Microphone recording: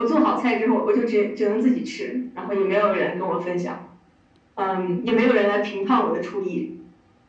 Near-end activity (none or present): none